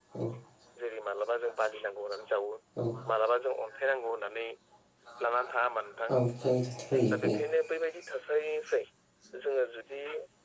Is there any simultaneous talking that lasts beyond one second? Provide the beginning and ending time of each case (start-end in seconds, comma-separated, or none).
none